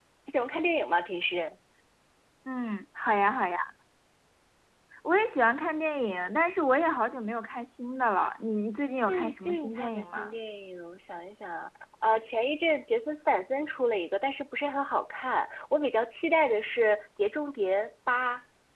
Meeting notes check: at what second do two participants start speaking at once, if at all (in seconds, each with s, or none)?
9.1 s